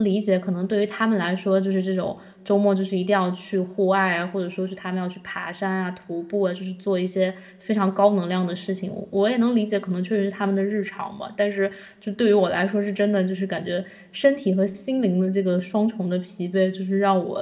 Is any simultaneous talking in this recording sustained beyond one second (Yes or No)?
No